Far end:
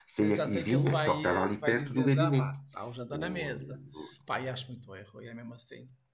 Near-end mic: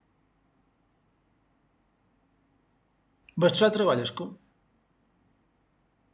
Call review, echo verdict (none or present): none